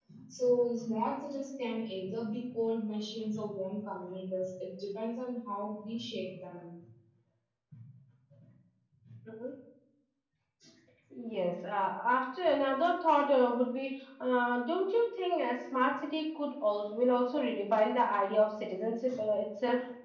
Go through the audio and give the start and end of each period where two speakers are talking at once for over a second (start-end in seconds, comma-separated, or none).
none